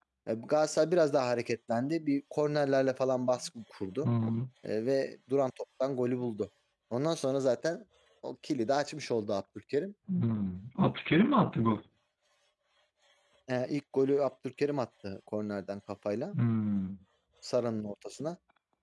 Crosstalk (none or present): none